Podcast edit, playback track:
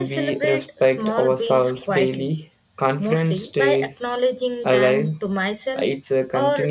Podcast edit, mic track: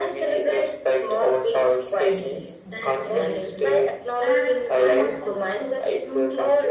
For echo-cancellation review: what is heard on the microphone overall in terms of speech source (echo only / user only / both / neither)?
both